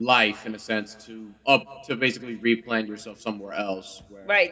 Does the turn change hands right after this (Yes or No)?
Yes